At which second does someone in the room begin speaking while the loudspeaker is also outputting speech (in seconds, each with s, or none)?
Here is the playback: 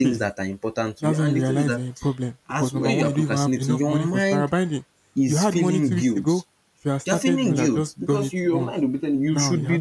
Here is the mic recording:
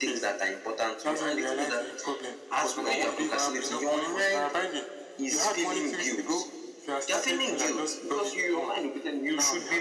none